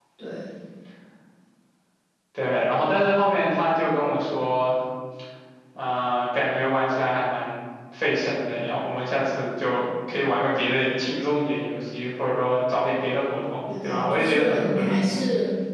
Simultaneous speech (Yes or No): Yes